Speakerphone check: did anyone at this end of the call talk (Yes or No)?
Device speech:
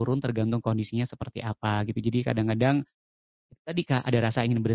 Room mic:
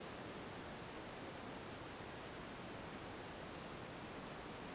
No